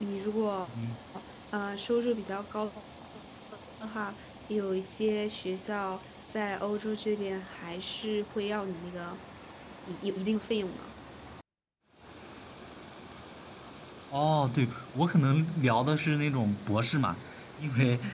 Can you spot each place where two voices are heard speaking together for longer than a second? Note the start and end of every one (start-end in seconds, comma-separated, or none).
none